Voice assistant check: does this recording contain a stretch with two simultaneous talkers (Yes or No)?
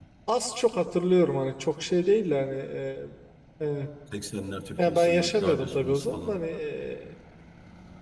Yes